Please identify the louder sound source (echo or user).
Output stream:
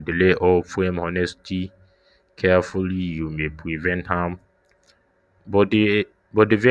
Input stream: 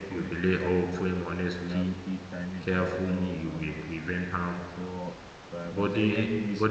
echo